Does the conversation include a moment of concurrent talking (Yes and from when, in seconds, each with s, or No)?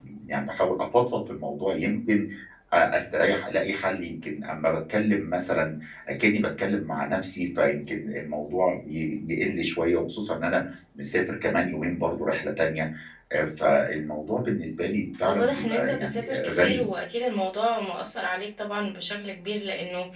Yes, from 15.2 s